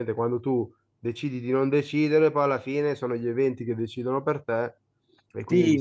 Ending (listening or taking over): taking over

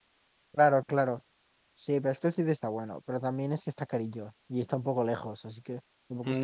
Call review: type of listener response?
taking over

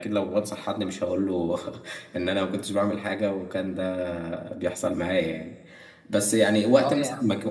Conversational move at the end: listening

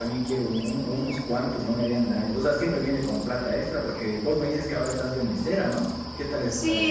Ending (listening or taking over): taking over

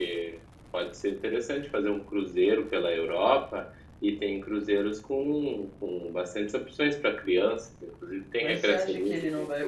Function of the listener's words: taking over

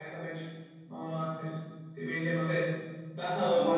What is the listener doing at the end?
taking over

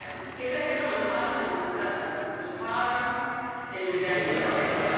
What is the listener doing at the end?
listening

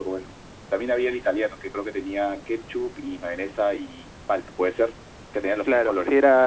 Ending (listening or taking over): taking over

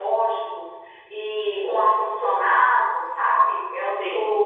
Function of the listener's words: listening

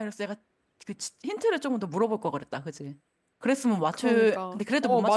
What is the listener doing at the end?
taking over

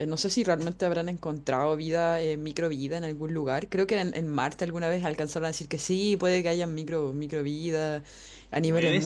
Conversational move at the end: listening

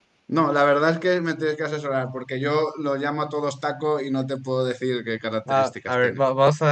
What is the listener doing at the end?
taking over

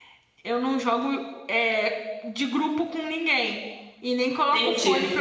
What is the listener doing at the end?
listening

